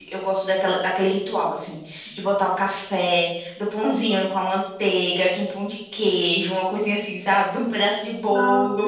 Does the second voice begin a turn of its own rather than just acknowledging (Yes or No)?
Yes